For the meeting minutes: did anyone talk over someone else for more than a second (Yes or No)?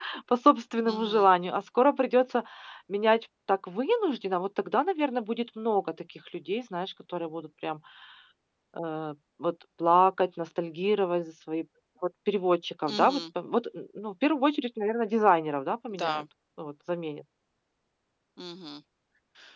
No